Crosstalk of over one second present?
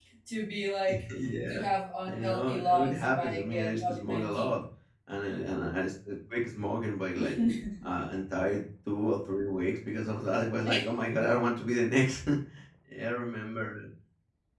Yes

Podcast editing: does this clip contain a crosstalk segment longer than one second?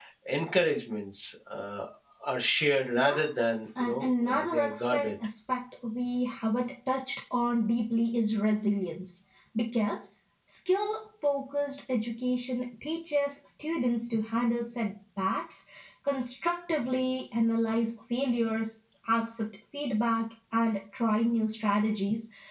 Yes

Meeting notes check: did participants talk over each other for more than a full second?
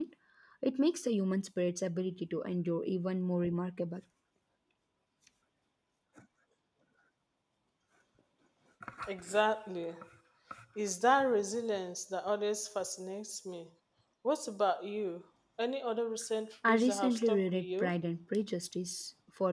Yes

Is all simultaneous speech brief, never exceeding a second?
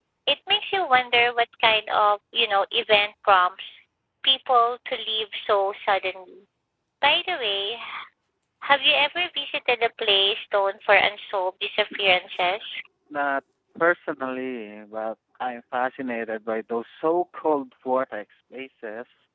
Yes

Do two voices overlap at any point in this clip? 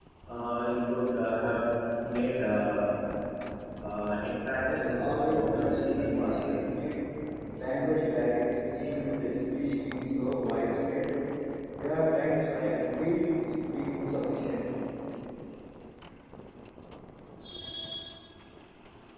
Yes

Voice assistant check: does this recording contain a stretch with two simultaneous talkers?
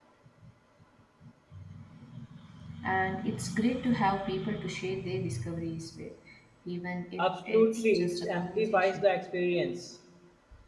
Yes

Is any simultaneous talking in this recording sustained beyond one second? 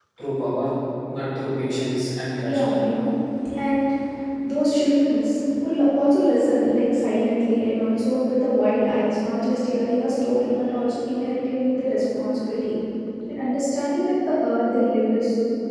No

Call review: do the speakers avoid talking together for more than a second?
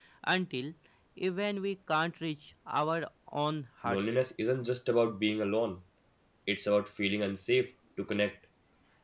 Yes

